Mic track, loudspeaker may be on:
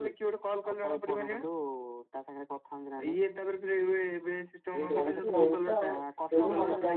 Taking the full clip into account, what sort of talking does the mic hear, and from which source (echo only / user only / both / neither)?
both